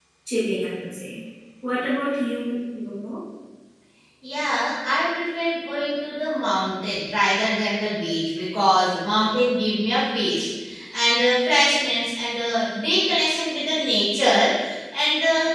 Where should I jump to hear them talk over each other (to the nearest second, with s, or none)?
none